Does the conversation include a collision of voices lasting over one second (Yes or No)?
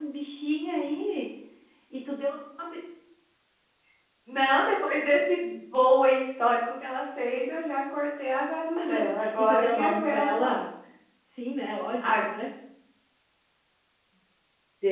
Yes